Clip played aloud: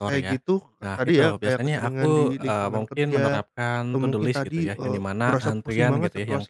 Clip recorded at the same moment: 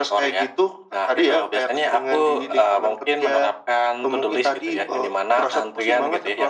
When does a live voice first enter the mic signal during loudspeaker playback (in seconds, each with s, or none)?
none